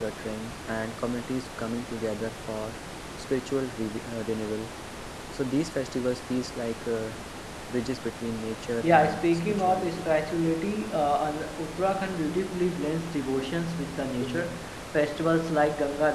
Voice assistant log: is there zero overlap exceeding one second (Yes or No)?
No